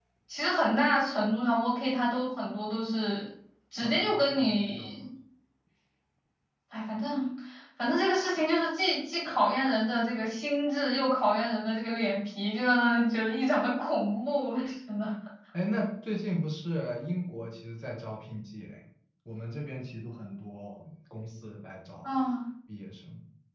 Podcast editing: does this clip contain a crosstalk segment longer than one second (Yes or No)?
Yes